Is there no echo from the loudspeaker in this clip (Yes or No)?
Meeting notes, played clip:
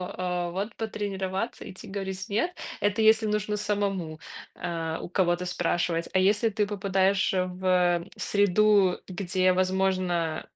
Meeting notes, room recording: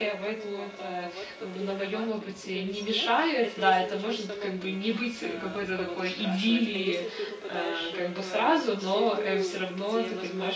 No